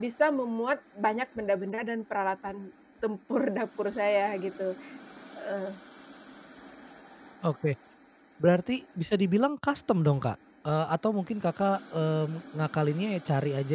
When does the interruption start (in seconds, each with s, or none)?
none